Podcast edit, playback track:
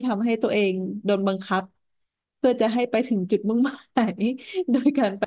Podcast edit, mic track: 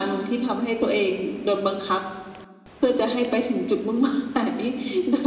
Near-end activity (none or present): none